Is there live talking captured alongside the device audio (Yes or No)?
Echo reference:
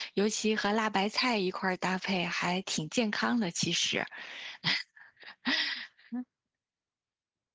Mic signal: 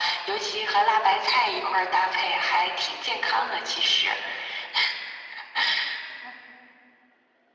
No